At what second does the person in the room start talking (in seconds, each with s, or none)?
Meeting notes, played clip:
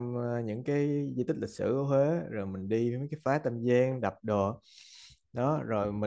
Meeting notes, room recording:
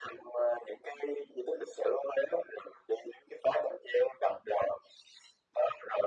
none